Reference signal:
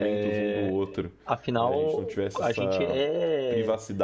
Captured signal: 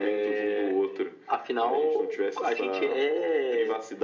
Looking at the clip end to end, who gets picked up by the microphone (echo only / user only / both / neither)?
echo only